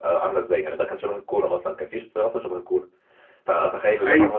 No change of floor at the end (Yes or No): Yes